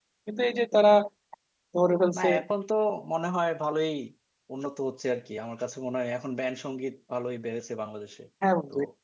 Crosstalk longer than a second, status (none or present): none